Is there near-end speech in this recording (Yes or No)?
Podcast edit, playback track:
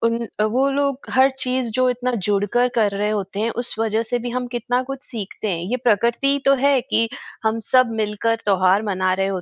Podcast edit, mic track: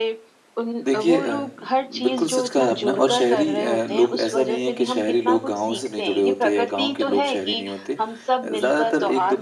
Yes